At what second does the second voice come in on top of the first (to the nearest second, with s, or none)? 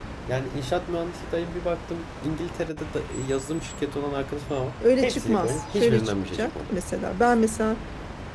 5 s